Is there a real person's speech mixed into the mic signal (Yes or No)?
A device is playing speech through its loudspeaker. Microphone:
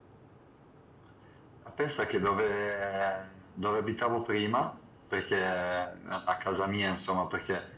No